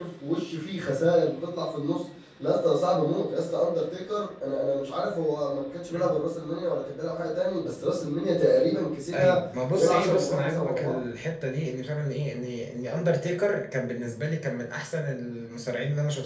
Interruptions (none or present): present